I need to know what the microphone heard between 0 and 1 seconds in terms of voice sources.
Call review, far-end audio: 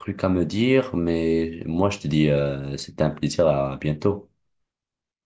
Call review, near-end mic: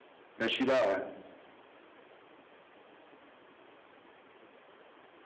user only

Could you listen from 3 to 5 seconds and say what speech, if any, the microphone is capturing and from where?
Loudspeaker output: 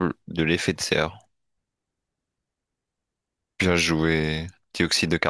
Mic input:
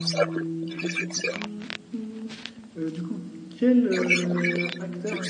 both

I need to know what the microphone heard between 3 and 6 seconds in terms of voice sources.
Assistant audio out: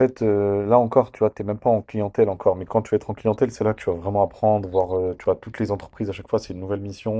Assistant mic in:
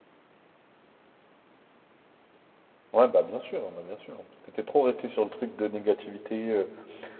user only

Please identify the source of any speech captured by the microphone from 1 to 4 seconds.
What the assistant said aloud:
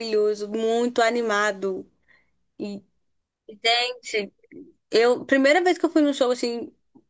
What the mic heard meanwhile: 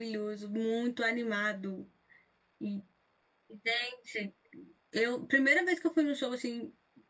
echo only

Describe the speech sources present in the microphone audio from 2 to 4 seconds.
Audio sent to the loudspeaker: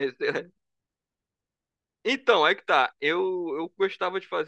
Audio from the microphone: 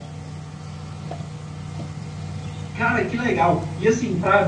user only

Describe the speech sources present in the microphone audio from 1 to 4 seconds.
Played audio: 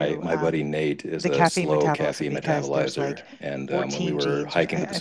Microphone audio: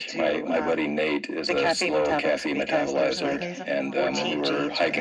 both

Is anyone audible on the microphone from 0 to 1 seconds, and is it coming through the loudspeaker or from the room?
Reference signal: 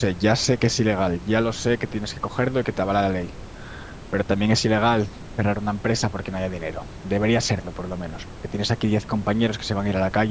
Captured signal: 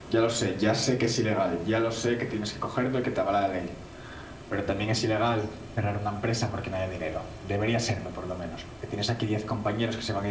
echo only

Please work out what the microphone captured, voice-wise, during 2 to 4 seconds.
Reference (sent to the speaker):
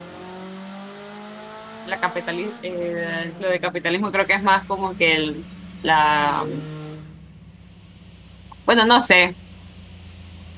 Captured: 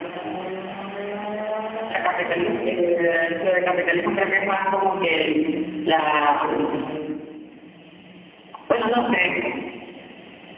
echo only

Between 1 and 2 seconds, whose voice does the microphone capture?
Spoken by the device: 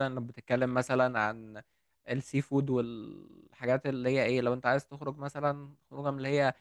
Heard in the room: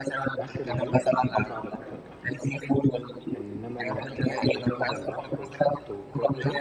both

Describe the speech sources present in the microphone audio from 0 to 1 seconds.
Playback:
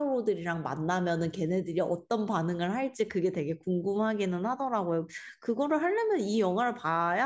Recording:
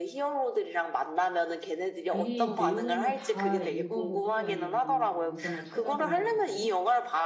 echo only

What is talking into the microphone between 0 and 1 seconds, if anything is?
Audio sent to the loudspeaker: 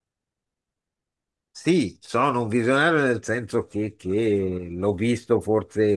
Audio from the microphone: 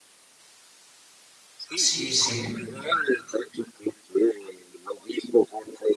neither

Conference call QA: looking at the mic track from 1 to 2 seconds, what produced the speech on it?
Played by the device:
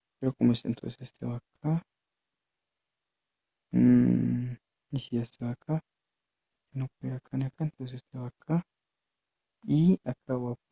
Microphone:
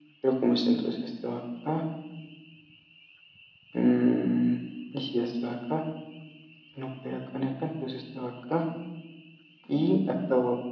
echo only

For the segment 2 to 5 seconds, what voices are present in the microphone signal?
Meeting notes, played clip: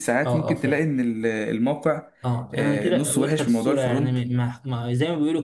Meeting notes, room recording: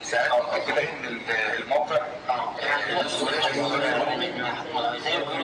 both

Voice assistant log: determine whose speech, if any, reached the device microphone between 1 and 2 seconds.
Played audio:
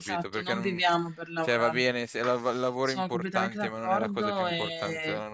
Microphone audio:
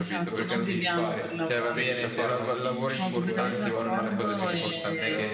both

